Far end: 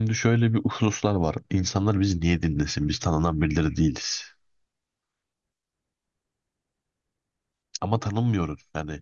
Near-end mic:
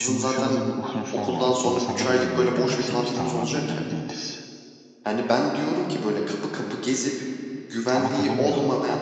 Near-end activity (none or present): present